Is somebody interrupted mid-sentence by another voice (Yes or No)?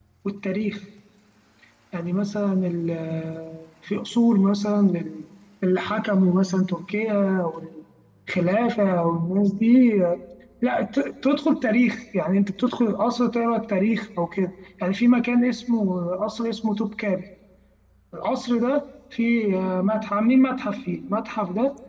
No